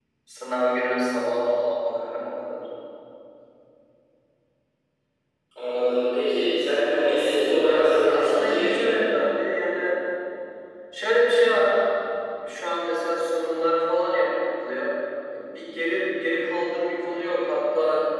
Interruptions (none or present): present